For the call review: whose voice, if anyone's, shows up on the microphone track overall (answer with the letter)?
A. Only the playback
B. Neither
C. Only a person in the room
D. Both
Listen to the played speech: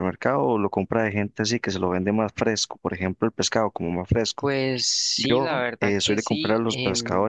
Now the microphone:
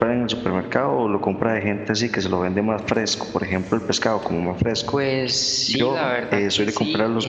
A